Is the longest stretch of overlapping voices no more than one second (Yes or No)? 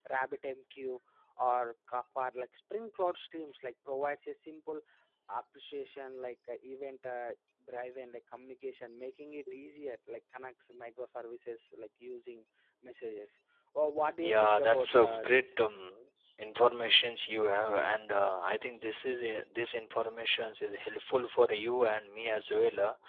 No